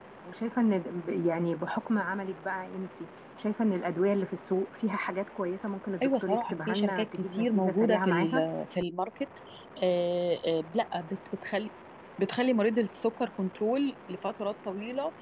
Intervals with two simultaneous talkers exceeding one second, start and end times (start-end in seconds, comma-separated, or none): 6.0-8.5